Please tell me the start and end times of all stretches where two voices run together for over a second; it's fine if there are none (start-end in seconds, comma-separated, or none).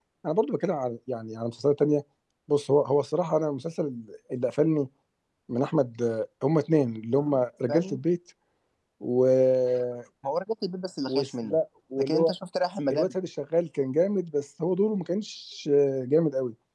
none